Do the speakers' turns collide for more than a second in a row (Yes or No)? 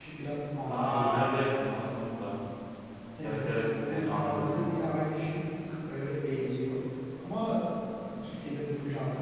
Yes